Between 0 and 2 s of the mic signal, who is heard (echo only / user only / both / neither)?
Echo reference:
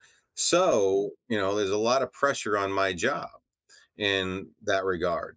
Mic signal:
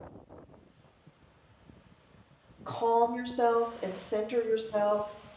neither